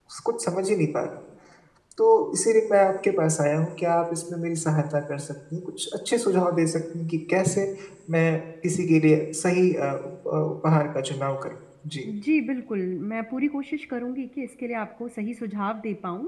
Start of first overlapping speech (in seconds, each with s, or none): none